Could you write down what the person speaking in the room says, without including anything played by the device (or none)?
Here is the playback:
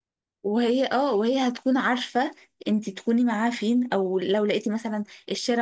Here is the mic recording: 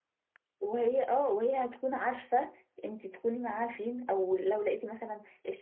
none